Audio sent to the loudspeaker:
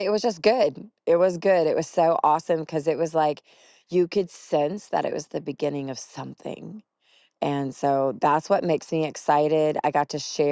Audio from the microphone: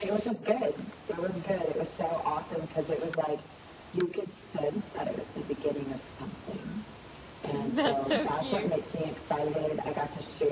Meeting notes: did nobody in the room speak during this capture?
No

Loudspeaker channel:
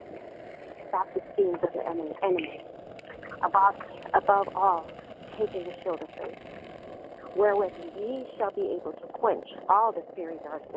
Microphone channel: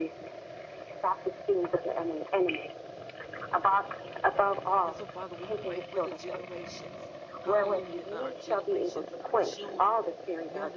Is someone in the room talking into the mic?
Yes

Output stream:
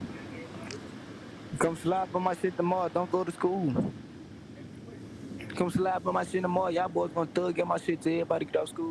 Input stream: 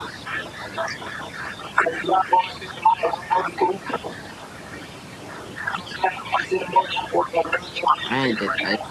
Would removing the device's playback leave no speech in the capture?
No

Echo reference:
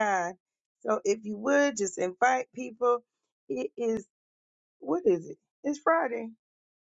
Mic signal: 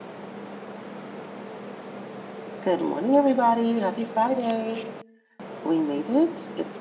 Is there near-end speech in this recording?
Yes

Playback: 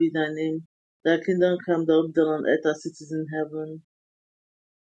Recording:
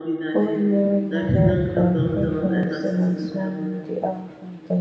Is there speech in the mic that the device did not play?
Yes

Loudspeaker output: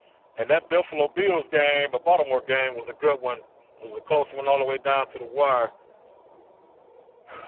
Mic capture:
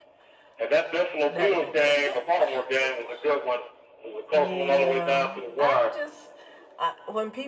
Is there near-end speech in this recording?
Yes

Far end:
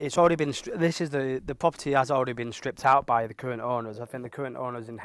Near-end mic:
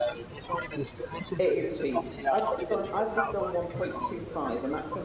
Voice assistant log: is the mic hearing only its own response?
No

